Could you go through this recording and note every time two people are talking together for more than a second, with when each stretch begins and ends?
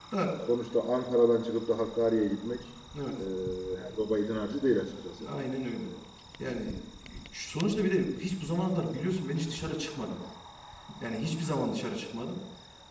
none

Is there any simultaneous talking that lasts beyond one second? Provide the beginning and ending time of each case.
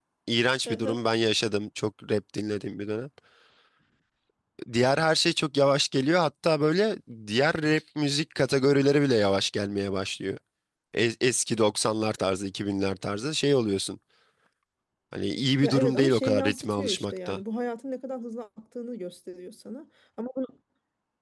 15.6-17.4

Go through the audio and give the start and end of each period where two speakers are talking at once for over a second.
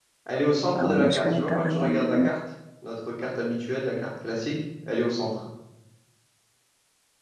0.8-2.3

